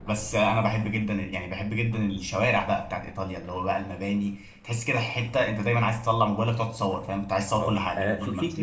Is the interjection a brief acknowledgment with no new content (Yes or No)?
No